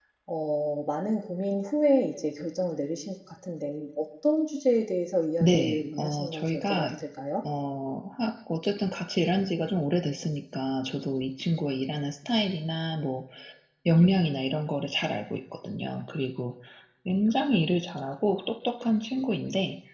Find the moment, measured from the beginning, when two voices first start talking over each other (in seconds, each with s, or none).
5.4 s